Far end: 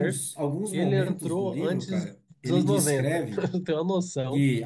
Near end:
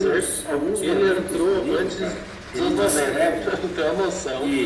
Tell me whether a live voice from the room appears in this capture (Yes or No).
No